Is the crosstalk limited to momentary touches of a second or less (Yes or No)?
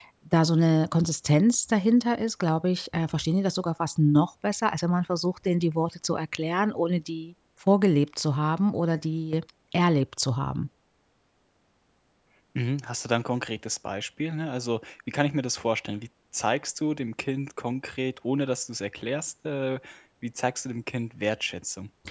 Yes